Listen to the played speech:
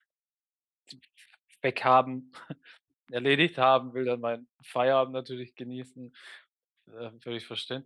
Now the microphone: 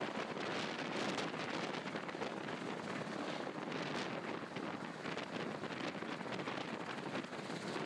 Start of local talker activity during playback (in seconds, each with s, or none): none